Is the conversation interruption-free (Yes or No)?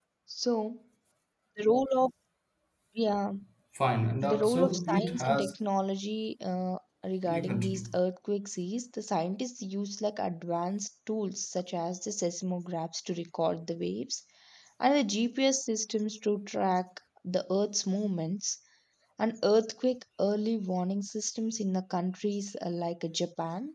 No